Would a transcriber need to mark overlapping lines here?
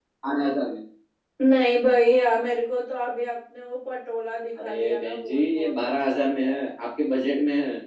Yes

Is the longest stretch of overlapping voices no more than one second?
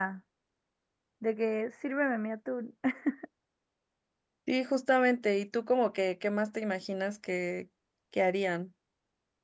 Yes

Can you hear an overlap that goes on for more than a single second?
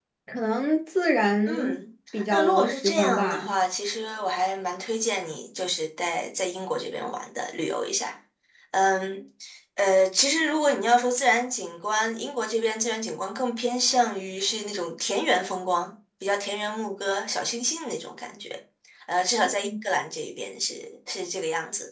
Yes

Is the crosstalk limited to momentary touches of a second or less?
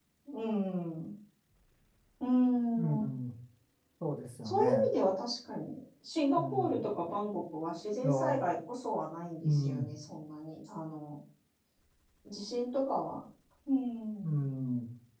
Yes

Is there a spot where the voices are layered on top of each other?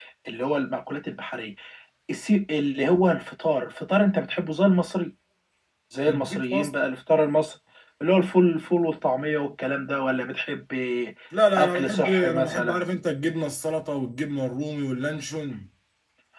Yes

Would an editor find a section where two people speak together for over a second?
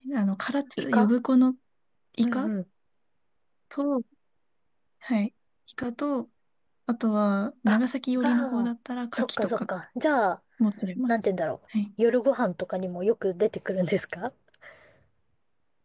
No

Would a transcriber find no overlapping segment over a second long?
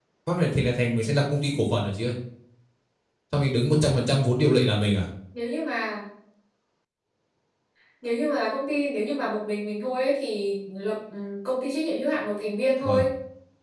Yes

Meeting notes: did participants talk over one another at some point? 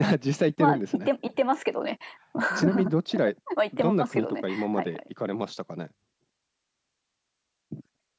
Yes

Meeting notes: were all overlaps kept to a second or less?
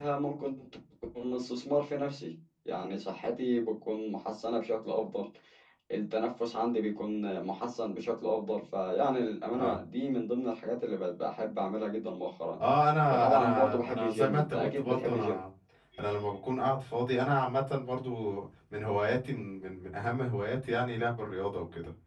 No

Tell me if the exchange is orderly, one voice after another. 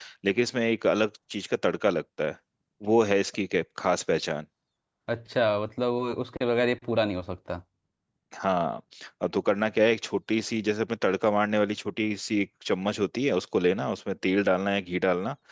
Yes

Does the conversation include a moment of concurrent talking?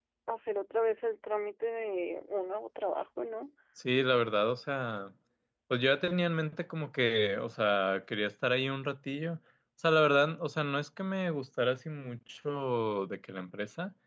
No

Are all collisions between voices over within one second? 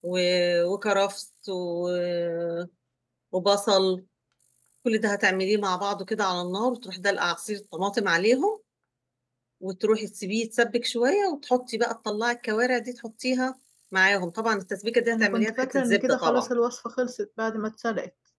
No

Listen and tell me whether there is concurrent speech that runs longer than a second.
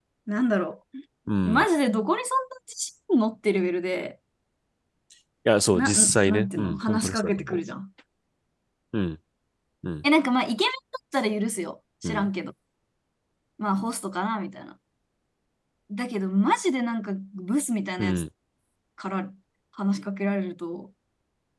Yes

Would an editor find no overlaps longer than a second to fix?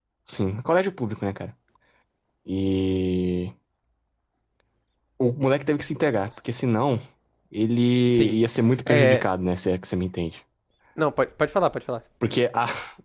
Yes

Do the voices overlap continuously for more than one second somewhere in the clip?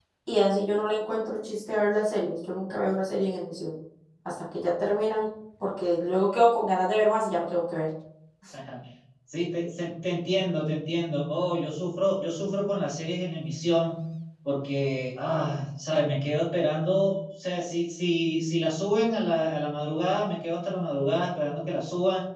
No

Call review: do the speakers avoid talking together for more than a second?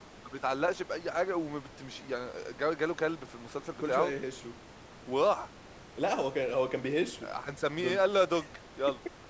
Yes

